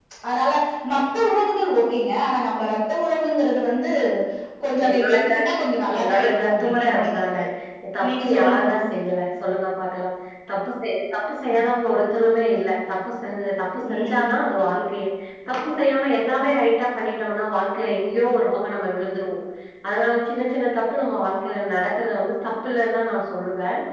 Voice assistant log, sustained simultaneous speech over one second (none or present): present